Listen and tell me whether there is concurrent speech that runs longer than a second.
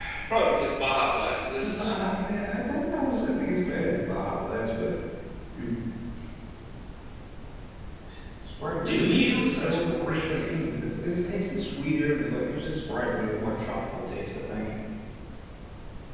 Yes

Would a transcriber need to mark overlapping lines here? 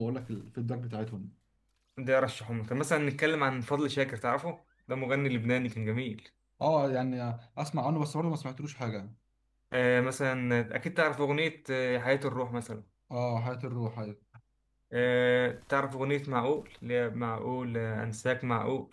No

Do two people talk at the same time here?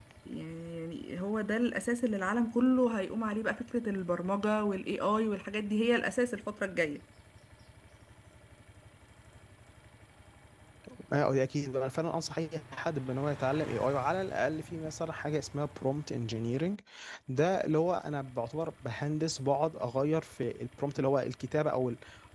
No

